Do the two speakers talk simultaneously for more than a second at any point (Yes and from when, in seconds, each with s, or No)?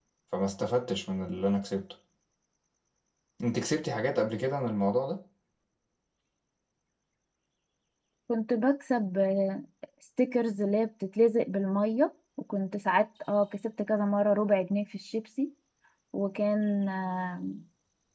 No